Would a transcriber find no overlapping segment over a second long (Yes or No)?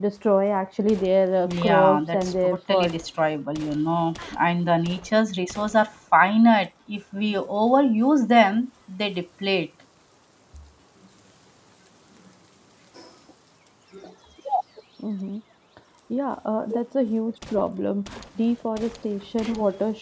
No